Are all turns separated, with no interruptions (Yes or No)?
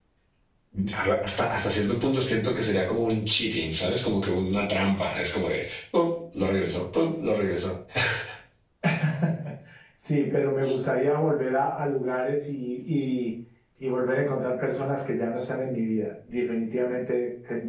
Yes